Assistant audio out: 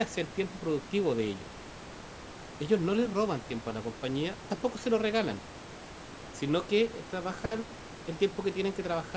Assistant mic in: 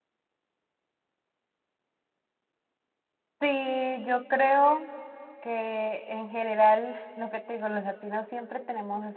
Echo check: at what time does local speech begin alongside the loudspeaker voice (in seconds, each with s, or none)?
3.4 s